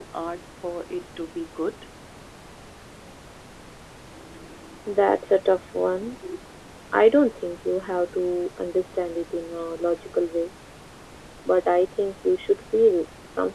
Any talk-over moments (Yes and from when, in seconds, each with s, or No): No